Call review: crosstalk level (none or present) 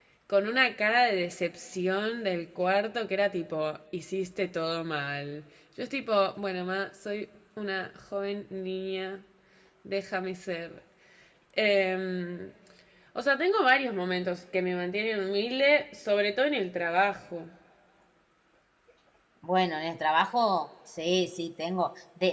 none